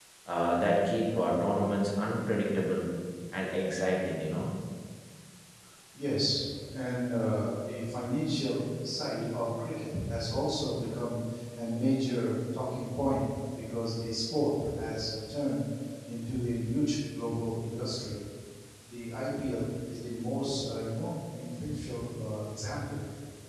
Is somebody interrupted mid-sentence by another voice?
No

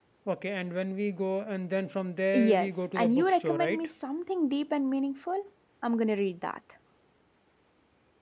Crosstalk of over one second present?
Yes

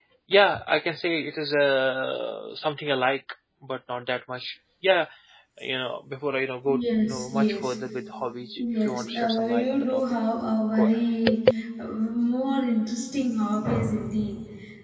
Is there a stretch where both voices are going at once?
Yes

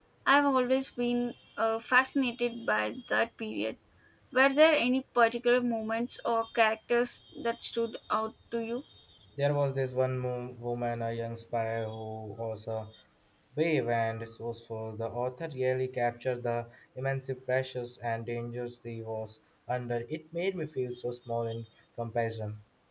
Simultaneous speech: No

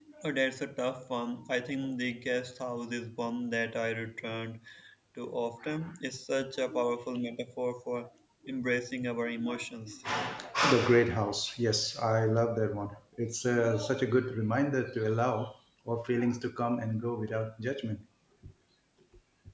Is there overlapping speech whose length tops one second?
No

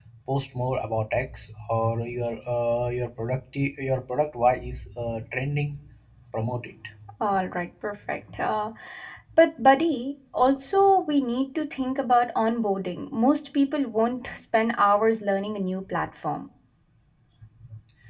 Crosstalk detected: No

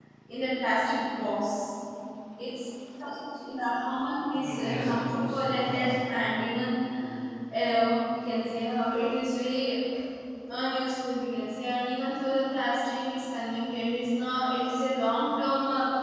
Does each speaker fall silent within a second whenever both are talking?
No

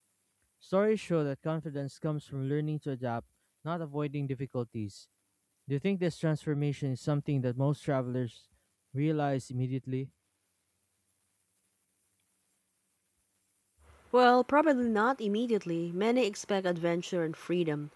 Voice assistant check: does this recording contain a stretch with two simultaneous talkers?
No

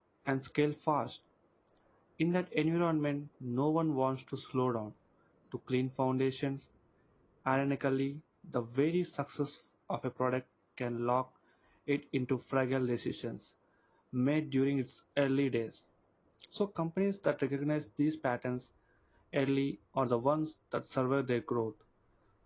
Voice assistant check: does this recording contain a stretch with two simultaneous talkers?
No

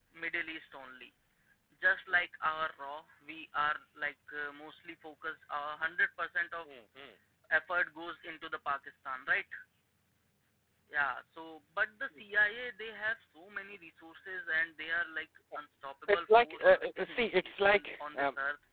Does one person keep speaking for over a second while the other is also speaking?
Yes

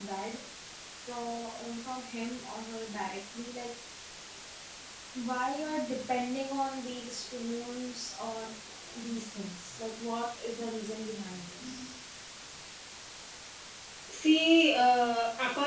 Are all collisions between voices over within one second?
Yes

